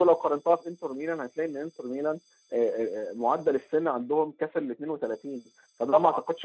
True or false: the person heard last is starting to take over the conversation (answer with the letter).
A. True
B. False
B